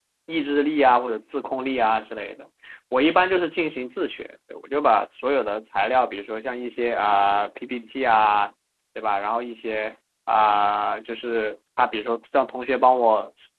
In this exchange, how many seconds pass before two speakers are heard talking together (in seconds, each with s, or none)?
none